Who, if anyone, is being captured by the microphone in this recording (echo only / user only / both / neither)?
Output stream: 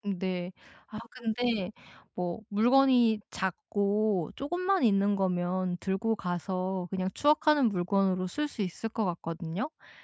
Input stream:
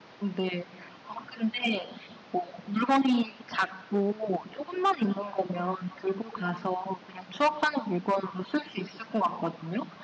echo only